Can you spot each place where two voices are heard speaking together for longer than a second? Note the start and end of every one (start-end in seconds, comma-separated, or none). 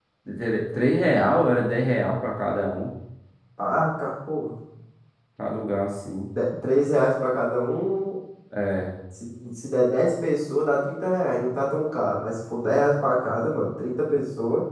none